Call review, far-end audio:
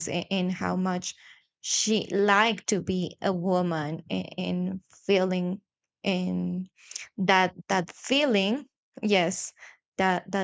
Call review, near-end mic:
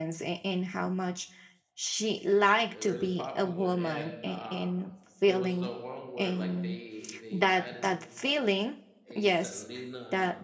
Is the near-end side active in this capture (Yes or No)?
Yes